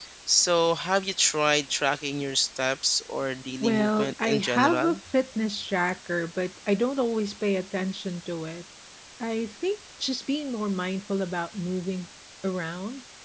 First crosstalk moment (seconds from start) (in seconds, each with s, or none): 3.6 s